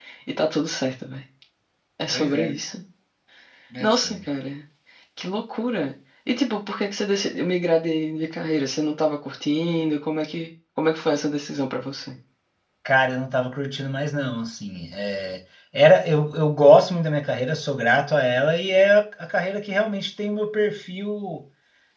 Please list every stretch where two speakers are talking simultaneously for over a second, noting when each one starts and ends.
none

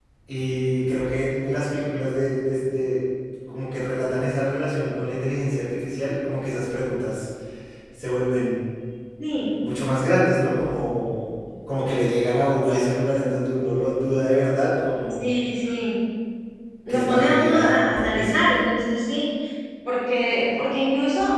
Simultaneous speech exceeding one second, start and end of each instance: 16.9-18.4

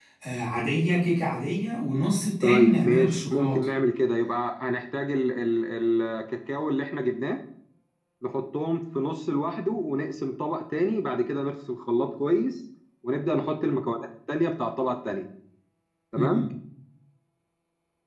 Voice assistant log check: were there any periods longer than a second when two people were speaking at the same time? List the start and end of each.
2.4-3.6

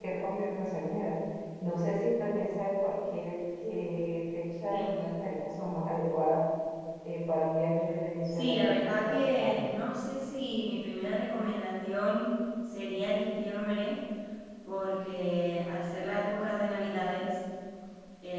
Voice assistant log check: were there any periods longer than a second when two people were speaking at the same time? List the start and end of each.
8.3-9.8

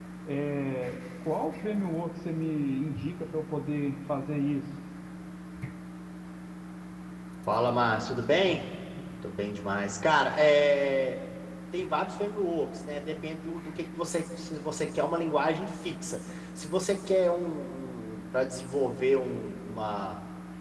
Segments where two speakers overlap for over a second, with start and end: none

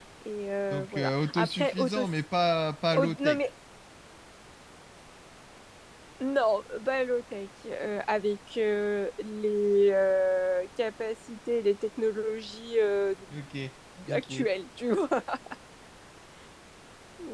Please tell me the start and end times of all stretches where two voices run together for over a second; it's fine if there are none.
0.7-2.0

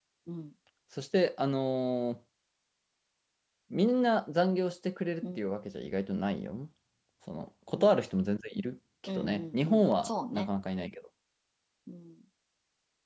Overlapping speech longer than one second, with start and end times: 9.2-10.5

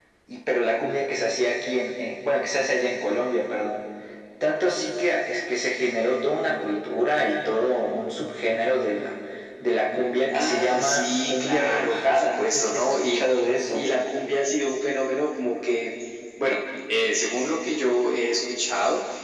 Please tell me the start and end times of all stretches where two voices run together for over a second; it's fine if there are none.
10.3-13.2

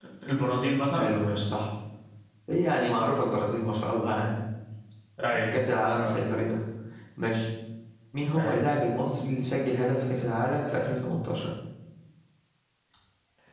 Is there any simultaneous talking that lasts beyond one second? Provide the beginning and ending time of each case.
none

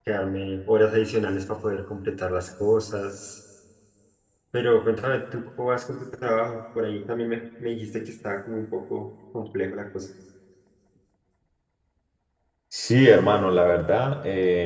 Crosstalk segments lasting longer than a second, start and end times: none

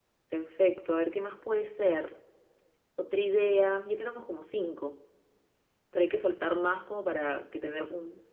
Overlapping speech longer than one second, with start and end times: none

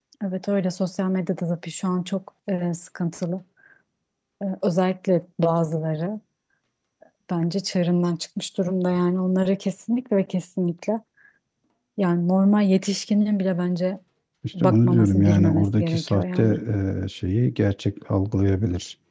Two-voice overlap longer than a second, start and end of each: 14.6-16.4

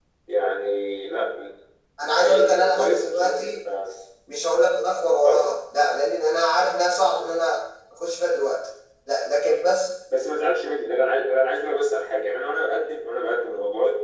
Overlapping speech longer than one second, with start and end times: 2.2-3.4

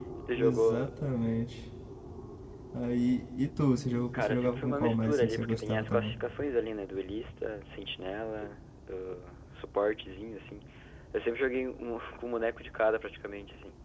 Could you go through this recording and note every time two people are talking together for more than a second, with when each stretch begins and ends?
4.1-6.2

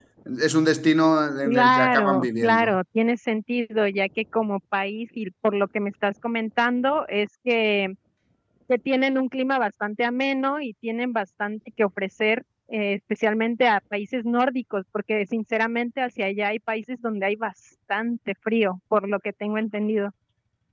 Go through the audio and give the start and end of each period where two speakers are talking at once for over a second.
1.4-2.7

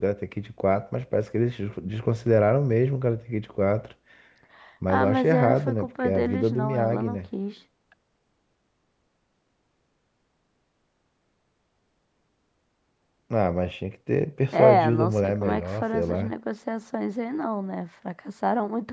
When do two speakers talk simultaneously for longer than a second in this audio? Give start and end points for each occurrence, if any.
4.9-7.2, 14.5-16.3

